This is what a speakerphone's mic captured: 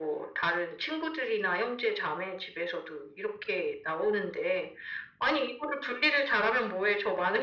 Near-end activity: none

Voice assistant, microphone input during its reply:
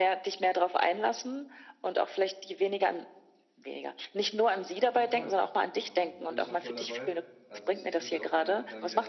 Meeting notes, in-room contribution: present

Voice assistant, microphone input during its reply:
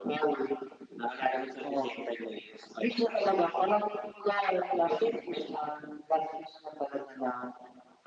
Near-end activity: none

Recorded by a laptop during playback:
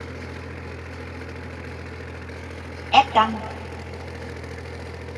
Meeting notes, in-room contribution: present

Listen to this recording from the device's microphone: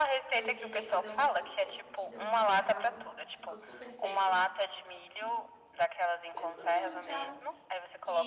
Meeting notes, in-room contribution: present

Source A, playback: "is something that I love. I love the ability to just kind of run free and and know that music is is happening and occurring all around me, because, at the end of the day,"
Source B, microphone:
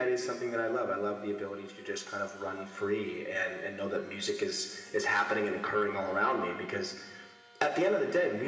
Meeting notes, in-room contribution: none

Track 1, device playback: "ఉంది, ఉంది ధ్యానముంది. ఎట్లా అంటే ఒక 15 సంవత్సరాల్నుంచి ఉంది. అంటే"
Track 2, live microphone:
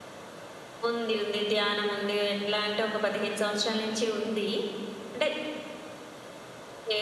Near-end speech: none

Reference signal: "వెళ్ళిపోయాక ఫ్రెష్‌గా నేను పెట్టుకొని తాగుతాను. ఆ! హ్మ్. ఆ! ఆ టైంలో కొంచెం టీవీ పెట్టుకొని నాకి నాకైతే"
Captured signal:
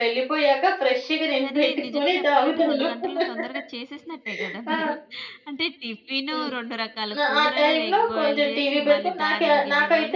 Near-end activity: present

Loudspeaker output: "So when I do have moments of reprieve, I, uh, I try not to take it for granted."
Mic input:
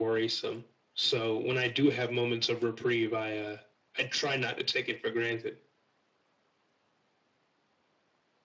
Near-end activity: none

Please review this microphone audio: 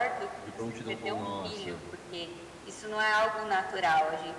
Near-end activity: present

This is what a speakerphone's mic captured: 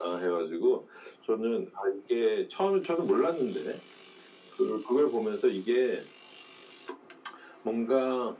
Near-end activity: none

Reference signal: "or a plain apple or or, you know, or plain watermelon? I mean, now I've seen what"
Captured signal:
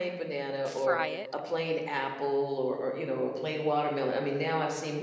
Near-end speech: present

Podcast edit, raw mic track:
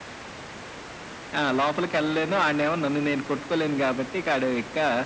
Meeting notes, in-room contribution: none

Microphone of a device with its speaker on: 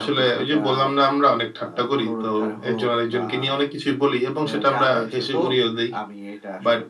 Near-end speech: none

